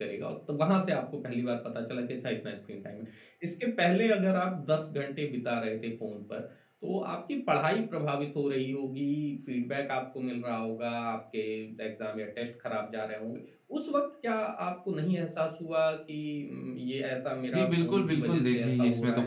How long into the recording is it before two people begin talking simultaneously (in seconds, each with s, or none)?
17.5 s